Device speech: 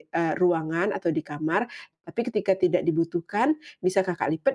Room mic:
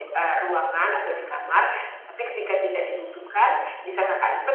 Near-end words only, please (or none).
none